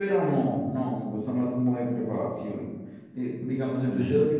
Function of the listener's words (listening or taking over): listening